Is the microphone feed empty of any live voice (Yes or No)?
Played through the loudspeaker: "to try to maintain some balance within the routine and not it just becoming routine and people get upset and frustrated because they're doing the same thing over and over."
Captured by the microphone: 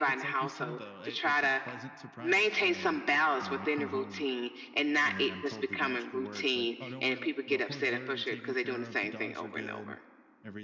No